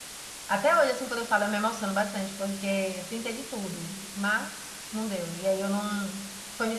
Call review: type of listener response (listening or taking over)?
taking over